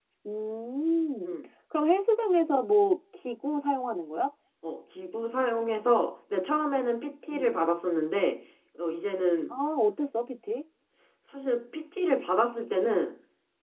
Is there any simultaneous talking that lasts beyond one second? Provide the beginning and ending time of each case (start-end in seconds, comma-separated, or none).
none